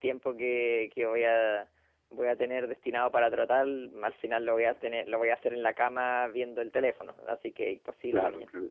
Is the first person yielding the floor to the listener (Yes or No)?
Yes